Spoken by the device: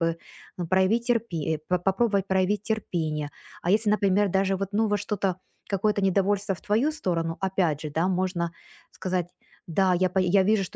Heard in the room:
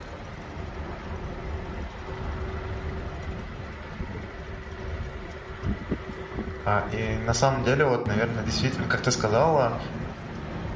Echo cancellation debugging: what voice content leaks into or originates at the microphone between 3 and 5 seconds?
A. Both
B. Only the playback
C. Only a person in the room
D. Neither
D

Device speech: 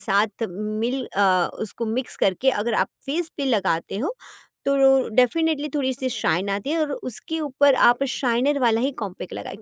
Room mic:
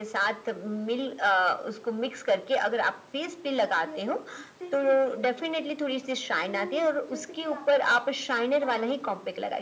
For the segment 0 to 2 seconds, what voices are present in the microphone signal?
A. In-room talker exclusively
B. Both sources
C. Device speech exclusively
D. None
C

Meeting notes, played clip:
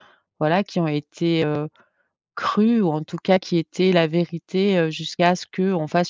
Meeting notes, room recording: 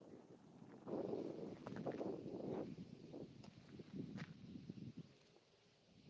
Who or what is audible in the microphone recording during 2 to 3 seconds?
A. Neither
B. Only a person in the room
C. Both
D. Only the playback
A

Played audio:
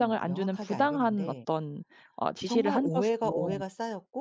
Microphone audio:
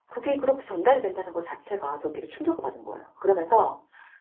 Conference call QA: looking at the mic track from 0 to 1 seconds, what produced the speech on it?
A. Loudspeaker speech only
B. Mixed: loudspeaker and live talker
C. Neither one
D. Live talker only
D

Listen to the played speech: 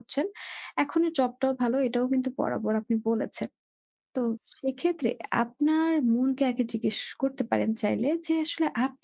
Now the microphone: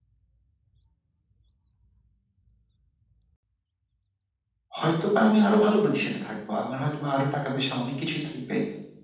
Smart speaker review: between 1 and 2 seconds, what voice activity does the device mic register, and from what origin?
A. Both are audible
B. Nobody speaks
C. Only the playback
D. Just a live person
B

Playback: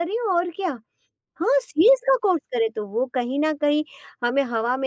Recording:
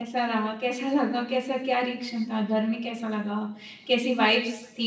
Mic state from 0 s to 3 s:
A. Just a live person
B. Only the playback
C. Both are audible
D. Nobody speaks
A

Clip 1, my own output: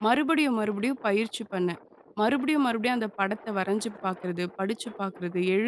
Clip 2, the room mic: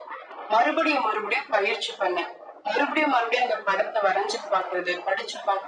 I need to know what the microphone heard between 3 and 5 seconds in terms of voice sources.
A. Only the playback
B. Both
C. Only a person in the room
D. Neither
A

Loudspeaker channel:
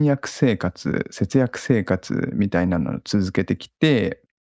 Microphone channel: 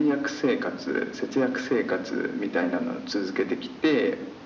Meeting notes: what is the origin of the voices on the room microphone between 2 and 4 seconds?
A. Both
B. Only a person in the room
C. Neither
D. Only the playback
D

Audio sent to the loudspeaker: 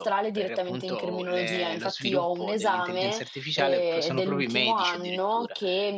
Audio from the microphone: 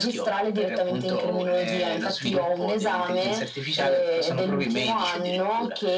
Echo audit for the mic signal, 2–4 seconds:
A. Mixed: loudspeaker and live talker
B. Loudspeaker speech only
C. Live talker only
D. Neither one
B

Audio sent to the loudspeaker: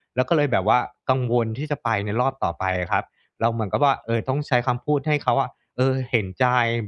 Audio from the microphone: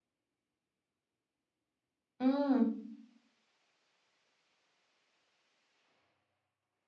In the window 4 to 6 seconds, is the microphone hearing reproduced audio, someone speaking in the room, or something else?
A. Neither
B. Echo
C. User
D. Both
A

